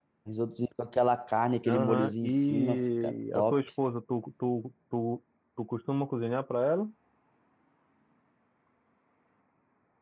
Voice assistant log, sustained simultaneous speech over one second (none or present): present